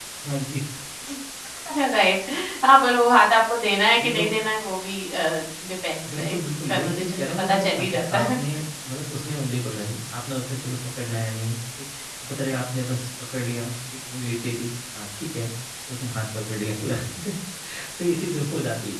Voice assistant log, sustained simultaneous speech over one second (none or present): present